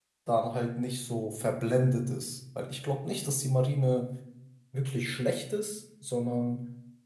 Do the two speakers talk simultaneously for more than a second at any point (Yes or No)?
No